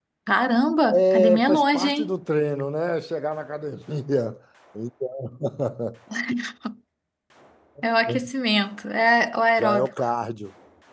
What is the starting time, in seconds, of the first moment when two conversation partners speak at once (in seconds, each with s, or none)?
0.9 s